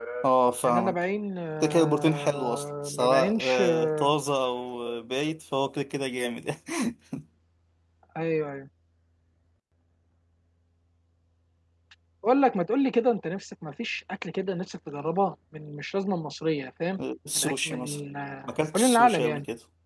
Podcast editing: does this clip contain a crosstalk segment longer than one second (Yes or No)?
Yes